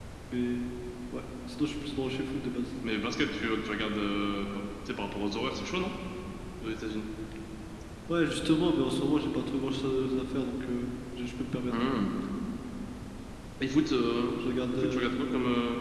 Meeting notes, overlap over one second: none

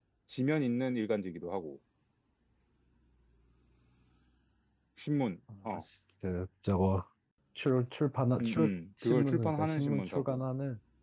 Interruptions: present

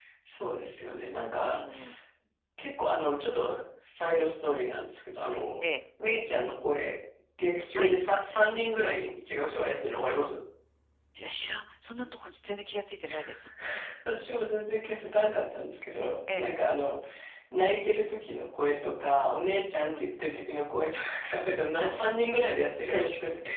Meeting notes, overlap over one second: none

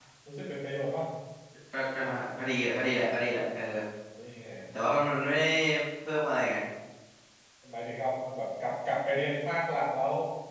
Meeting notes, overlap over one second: none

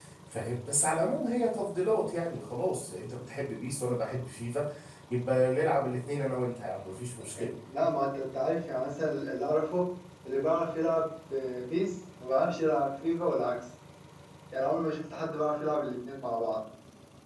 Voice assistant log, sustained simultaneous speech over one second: none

